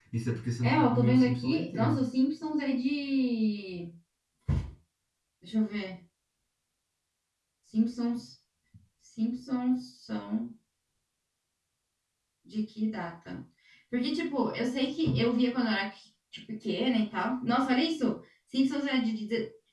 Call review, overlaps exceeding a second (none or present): present